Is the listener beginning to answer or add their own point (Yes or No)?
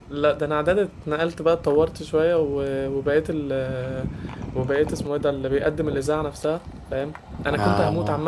No